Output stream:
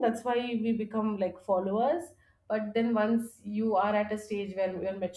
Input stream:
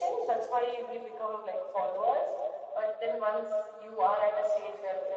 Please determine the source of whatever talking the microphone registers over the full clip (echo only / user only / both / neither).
echo only